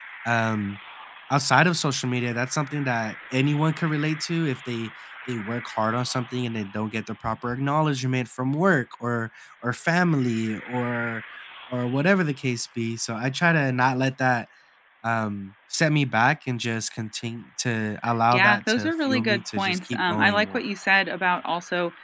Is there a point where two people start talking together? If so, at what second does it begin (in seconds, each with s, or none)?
18.3 s